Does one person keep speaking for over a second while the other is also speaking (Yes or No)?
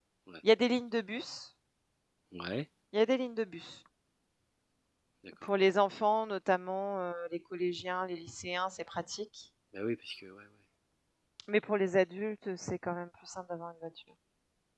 No